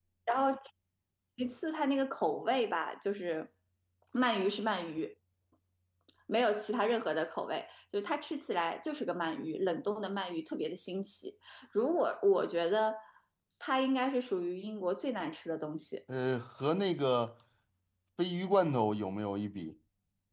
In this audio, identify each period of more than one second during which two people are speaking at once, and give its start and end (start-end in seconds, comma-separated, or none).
none